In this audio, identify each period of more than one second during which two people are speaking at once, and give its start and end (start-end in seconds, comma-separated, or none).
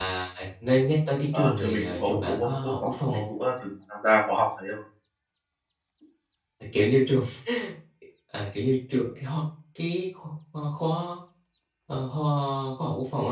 1.3-3.2